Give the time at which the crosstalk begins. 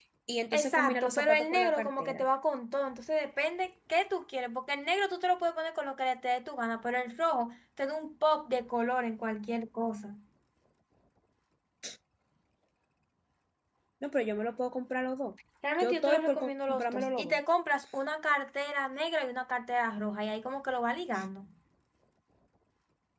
0.5 s

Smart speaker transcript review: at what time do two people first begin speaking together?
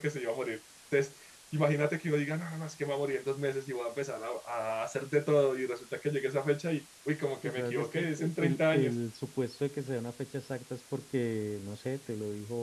7.4 s

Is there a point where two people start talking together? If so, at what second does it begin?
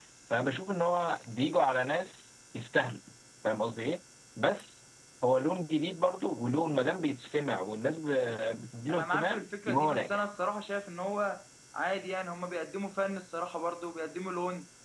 8.9 s

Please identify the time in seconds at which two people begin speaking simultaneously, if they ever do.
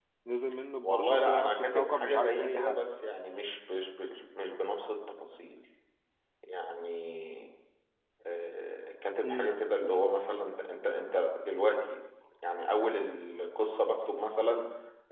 0.8 s

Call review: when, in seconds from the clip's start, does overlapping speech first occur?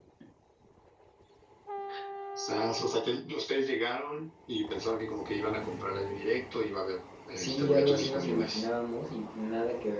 7.4 s

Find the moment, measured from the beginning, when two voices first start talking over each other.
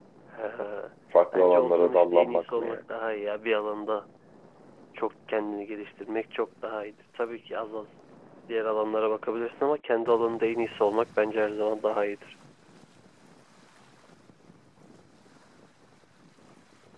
1.3 s

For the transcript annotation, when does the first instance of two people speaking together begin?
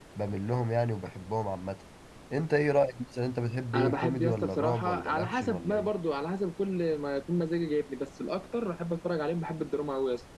3.7 s

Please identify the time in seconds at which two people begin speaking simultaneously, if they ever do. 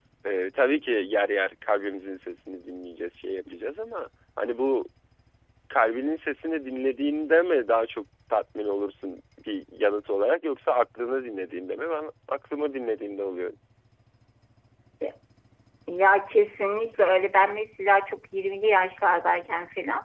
none

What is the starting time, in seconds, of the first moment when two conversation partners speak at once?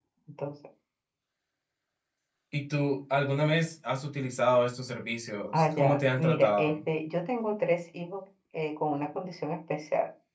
5.5 s

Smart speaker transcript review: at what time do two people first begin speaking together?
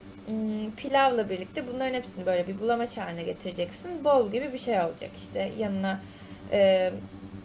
none

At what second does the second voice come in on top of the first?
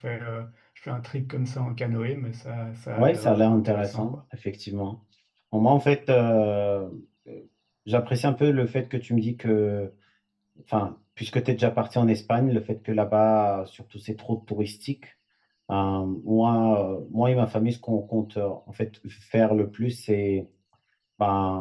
3.0 s

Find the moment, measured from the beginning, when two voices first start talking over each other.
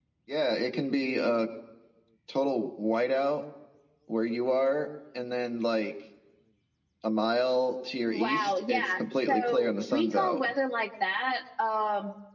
8.1 s

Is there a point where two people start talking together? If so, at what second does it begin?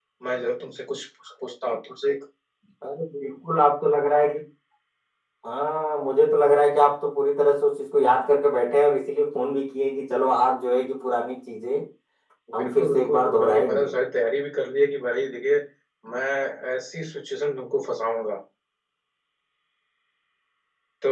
12.6 s

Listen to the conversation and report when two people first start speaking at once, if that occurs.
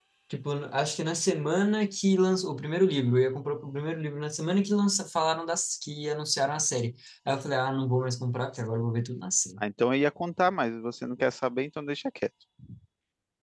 none

